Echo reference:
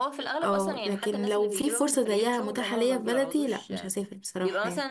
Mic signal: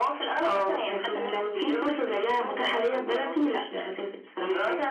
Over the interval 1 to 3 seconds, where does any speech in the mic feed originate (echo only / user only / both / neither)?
echo only